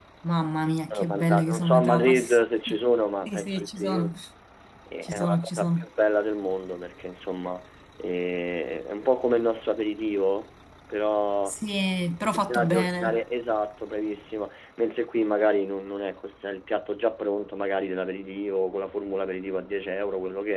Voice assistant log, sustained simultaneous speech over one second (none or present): present